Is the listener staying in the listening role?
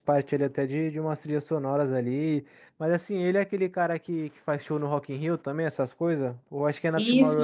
No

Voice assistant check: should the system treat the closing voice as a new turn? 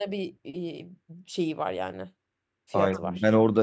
Yes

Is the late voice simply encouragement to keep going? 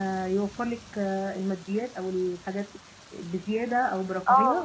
No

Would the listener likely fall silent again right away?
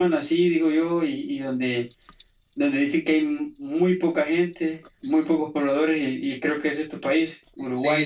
No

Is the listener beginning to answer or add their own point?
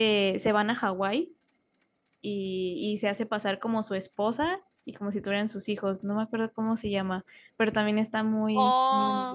Yes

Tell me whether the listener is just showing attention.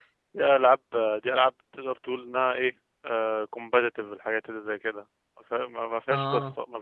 Yes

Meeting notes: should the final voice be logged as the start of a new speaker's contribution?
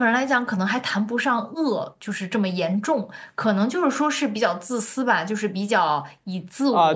Yes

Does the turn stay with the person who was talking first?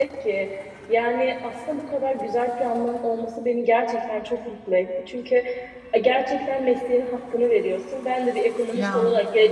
Yes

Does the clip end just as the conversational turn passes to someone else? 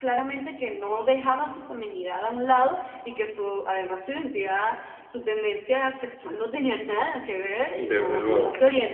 No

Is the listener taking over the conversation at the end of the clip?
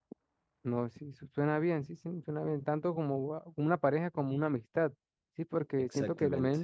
No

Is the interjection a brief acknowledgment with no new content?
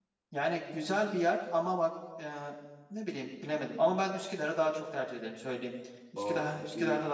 No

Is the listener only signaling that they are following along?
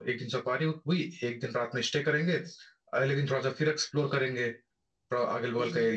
No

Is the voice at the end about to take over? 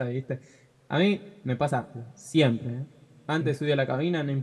No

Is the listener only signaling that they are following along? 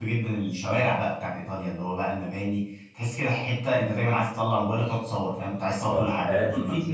No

